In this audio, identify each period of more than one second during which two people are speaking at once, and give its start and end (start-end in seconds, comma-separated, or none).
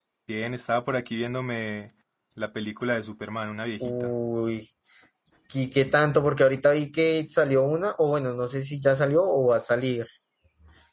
none